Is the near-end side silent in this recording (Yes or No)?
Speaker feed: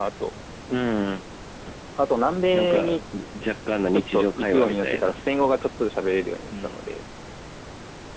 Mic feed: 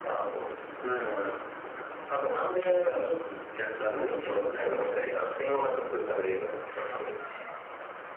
Yes